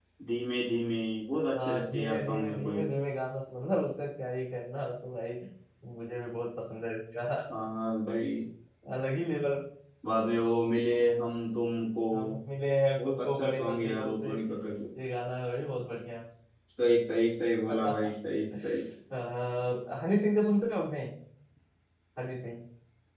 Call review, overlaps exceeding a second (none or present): present